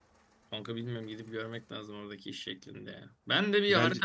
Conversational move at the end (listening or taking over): listening